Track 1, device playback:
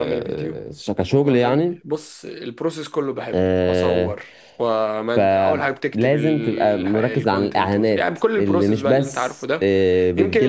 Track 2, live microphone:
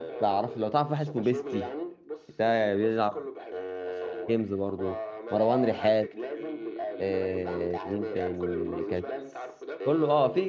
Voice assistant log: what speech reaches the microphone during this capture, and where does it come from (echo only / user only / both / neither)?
both